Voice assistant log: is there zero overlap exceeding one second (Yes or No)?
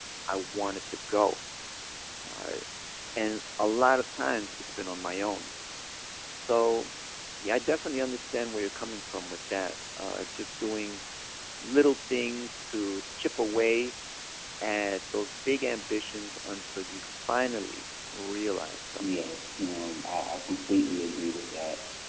Yes